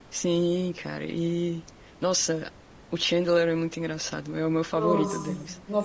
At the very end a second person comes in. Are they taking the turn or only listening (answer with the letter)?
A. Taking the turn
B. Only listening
A